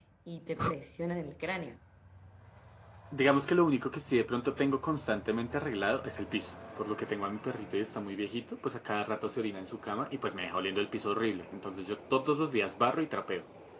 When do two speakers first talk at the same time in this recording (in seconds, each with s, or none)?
none